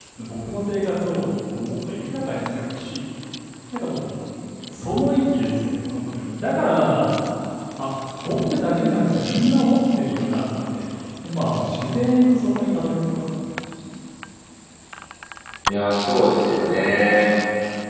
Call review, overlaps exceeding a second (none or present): none